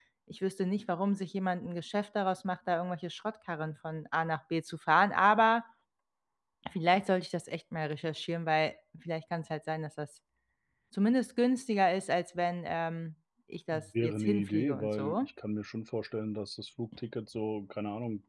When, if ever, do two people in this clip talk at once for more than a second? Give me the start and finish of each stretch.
13.7-15.2

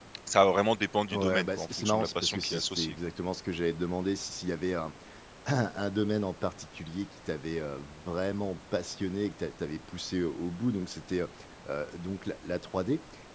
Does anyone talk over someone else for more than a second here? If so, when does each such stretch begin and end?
1.1-2.9

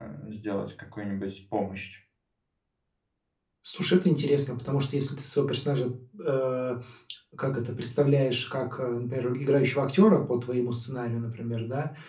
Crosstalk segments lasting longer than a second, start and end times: none

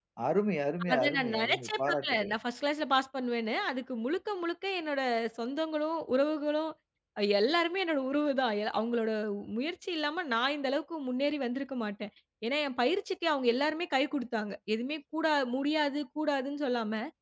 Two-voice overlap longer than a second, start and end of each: 0.9-2.3

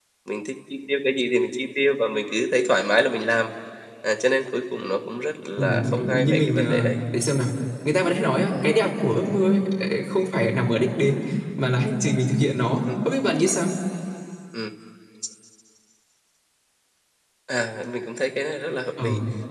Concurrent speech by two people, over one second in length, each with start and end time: 5.6-7.0

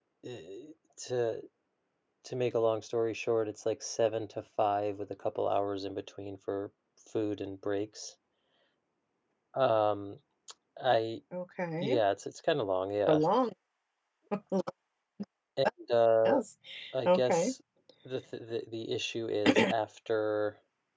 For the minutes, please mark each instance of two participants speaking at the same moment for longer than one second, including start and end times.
none

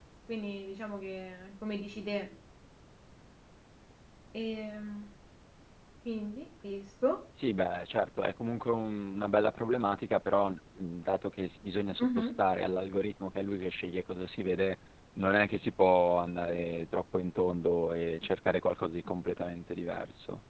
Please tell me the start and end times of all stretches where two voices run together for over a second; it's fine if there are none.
none

